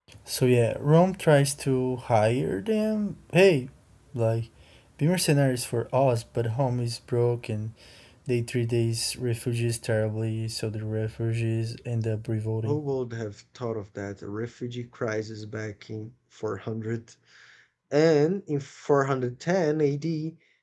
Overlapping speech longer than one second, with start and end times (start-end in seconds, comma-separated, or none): none